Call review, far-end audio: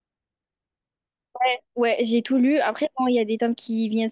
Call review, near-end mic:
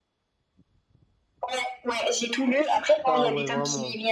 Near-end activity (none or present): present